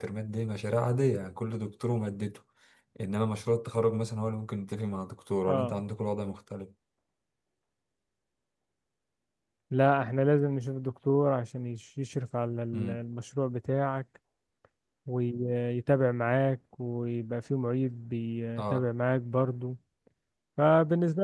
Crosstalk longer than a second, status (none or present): none